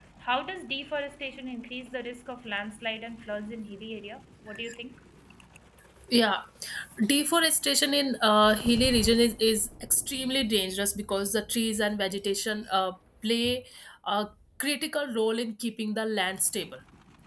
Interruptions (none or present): none